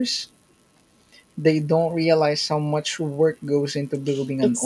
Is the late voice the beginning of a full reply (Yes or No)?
Yes